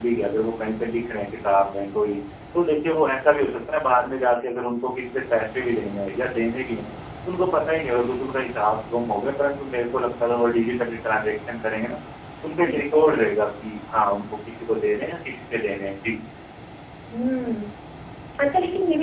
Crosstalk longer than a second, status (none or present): none